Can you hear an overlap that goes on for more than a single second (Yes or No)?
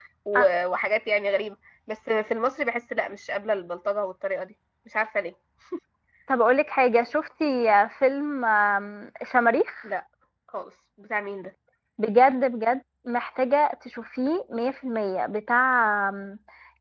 No